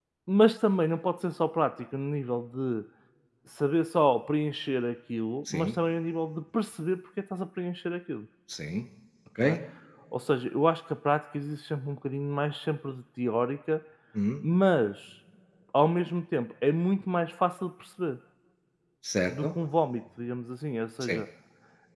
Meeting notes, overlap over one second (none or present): none